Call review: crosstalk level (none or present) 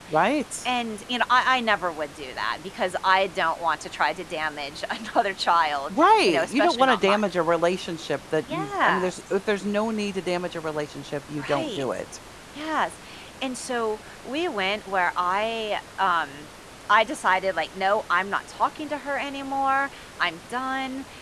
present